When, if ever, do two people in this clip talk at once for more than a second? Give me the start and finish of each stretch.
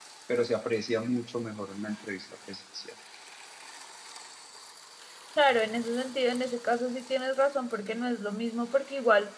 none

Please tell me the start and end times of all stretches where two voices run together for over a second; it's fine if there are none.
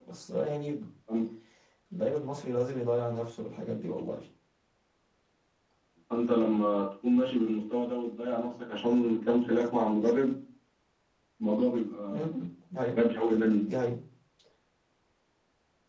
none

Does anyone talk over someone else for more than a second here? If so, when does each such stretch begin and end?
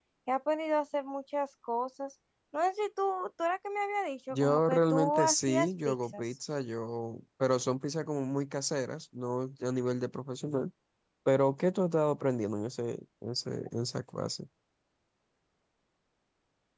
4.3-6.2

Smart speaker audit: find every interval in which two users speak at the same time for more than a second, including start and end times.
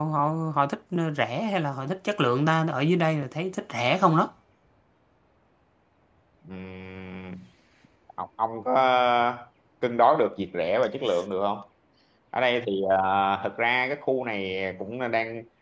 none

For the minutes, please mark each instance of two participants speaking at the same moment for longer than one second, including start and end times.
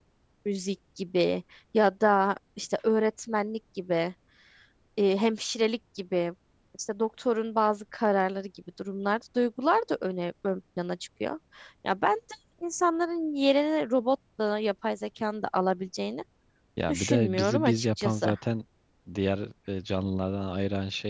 16.9-18.4

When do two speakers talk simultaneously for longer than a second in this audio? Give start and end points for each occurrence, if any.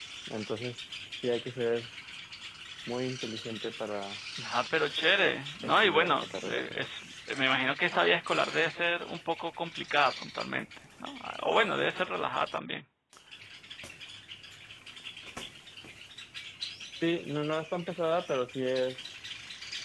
5.6-6.9

